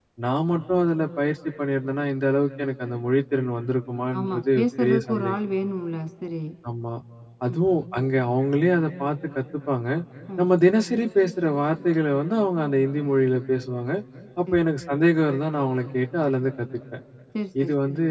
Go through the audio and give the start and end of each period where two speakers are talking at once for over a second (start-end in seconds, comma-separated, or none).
4.2-5.4